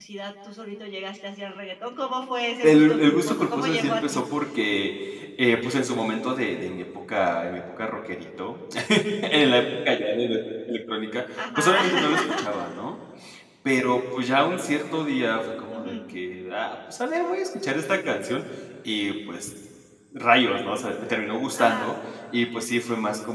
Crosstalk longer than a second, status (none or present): present